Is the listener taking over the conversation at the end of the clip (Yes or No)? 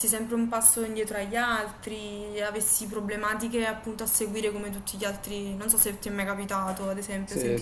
Yes